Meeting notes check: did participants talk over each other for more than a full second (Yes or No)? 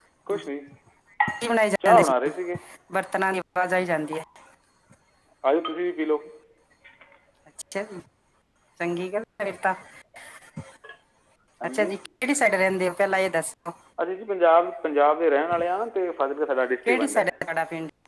No